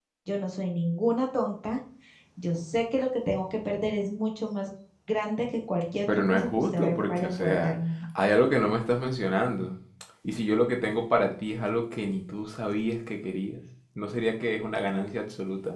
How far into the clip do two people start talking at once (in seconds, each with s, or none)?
6.1 s